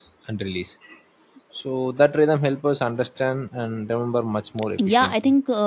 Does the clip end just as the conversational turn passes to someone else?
Yes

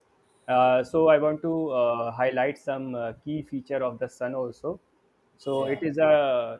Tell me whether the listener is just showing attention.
Yes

